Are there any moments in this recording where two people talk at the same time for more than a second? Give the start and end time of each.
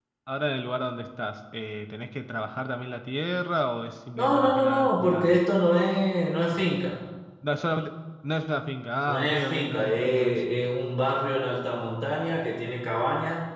4.2-5.4, 9.1-10.4

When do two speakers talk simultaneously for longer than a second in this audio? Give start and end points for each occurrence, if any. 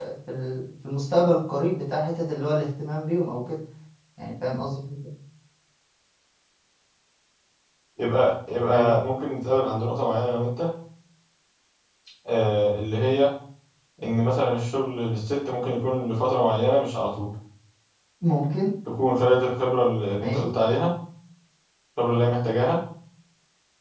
none

